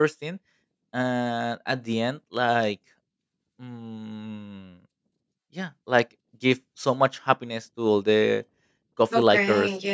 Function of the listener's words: taking over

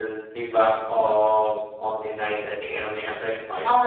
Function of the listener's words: taking over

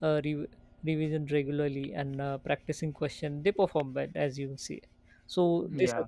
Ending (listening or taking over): listening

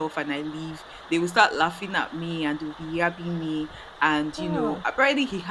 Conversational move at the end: listening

